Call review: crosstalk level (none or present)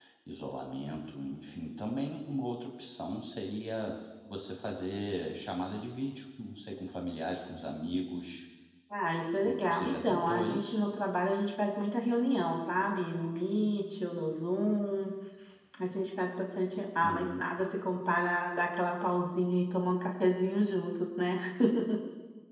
present